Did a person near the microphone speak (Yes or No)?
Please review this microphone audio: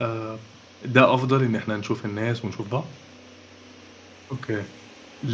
Yes